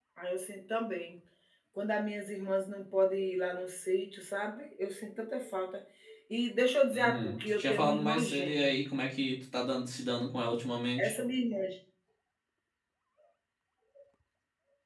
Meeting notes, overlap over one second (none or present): present